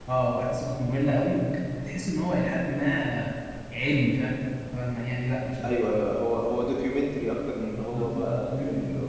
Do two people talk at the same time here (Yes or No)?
Yes